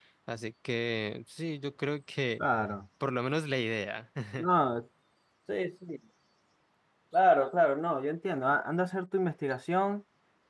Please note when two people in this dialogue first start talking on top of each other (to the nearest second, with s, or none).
none